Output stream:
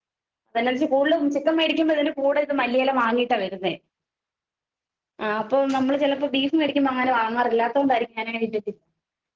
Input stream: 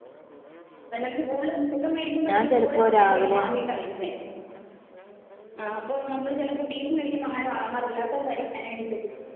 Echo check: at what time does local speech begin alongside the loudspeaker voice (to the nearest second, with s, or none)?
2 s